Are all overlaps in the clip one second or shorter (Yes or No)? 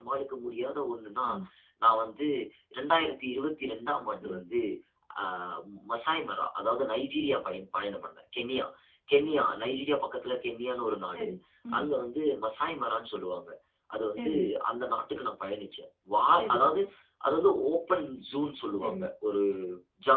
Yes